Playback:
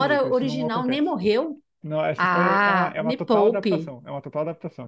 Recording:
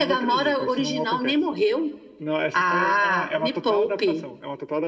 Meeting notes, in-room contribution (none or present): none